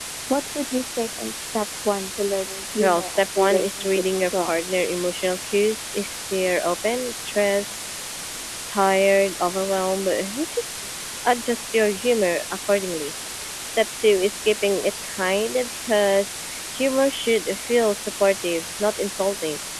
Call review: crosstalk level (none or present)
present